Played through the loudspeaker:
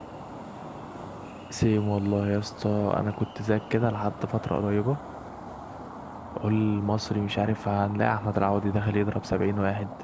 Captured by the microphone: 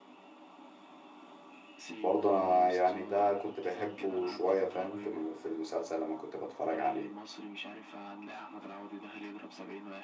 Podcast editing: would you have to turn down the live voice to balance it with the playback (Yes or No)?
Yes